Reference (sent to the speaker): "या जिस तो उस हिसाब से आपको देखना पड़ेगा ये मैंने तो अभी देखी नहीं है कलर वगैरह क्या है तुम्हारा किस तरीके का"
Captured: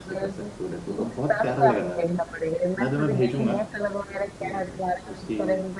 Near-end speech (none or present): present